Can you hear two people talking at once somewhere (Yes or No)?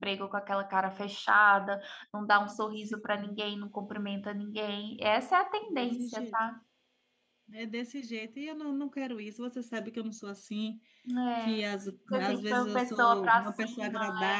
Yes